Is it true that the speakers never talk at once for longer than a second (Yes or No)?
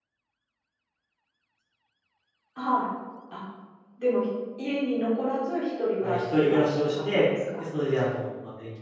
No